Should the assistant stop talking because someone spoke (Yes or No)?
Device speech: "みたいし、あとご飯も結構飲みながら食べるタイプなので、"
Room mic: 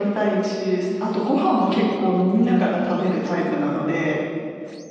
No